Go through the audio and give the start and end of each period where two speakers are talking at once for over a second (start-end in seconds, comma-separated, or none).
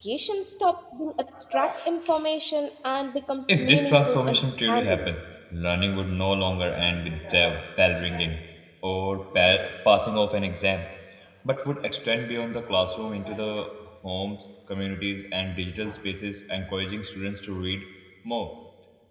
3.5-5.1